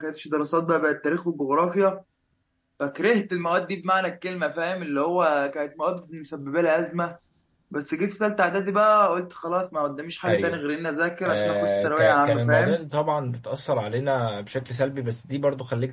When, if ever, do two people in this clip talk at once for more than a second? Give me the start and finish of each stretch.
11.2-12.8

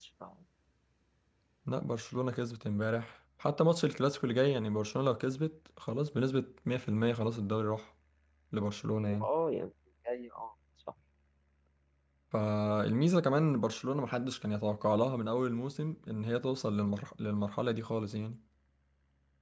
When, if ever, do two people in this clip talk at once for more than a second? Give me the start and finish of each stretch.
none

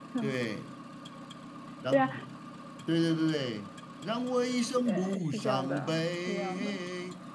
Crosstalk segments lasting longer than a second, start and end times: 4.8-6.8

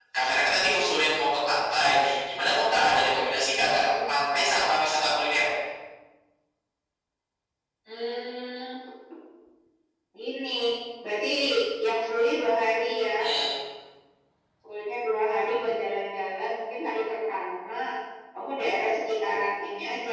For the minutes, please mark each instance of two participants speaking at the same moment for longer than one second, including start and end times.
none

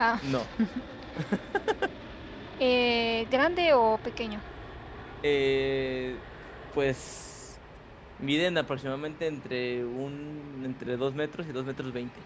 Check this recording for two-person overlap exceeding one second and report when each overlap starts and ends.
none

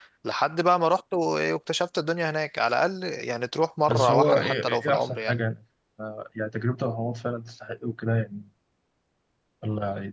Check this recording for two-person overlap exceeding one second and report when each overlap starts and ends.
3.9-5.3

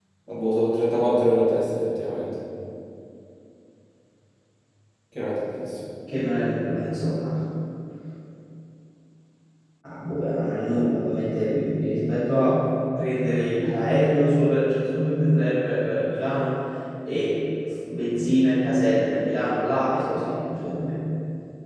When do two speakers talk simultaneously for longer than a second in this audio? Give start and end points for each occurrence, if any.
none

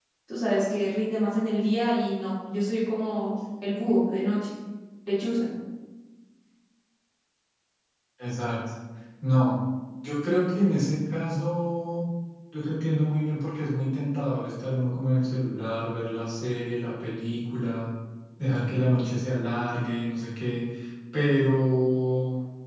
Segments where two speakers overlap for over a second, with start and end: none

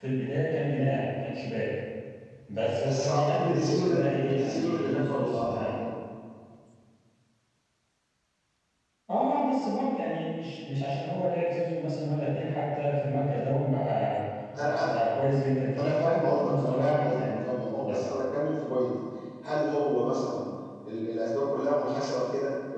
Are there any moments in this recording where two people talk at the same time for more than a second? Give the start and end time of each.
2.8-5.7, 15.8-18.0

